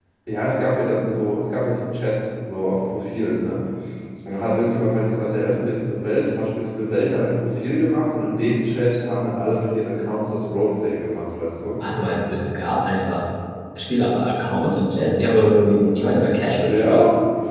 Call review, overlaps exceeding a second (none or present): none